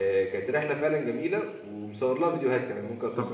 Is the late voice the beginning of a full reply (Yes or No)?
Yes